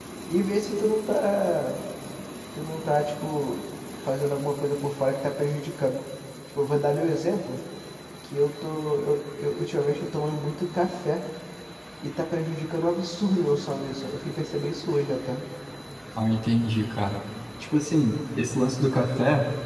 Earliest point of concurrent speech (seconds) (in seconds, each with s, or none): none